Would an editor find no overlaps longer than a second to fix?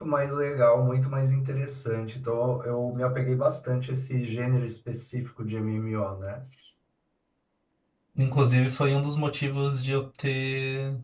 Yes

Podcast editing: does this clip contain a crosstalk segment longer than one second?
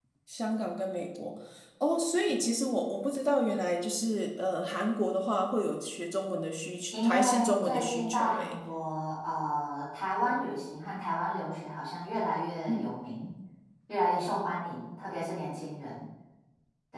Yes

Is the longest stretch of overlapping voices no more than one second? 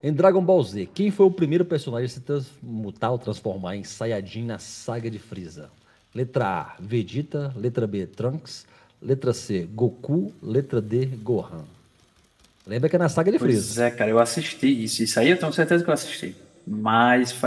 Yes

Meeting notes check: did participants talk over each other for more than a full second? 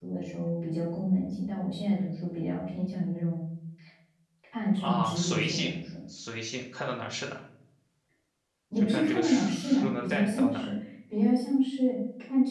Yes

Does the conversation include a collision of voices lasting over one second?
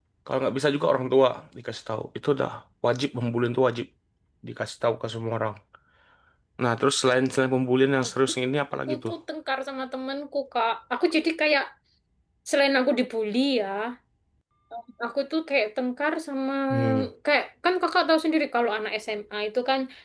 No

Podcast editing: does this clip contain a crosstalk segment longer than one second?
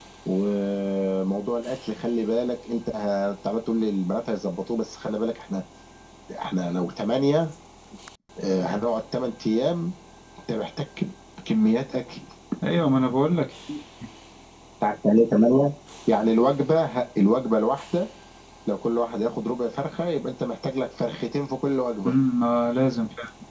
No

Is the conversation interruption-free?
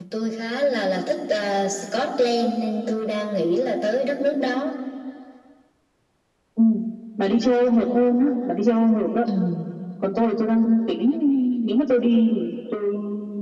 Yes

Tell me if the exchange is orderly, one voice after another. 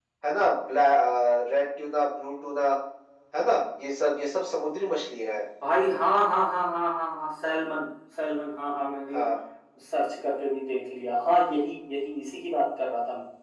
Yes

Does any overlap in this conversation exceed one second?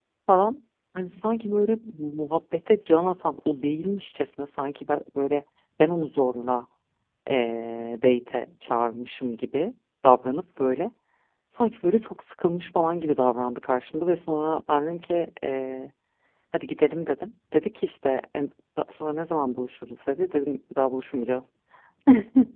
No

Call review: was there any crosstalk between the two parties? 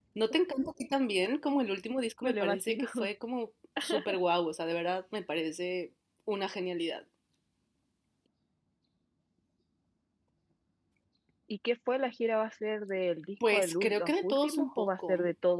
Yes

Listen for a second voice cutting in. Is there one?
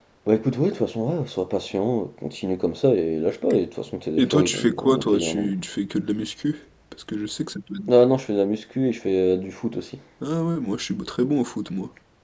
Yes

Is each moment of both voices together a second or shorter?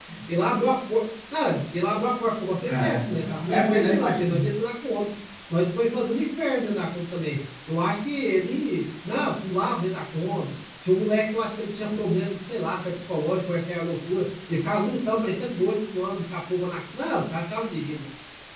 No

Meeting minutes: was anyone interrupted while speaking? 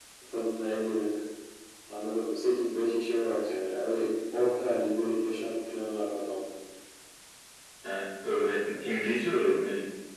No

